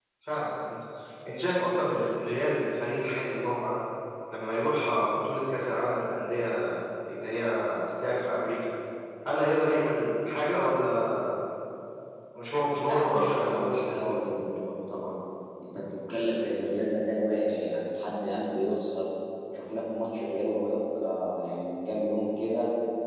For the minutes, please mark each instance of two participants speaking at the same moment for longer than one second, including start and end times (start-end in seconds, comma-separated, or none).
12.8-14.2